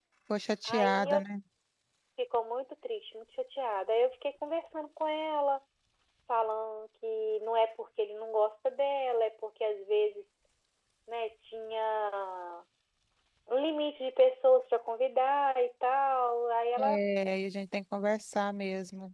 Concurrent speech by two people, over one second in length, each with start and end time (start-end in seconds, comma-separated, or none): none